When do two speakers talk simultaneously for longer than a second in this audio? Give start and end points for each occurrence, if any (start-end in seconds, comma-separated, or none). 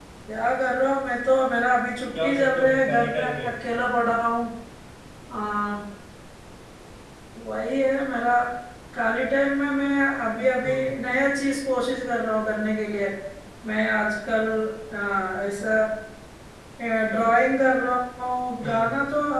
2.2-3.5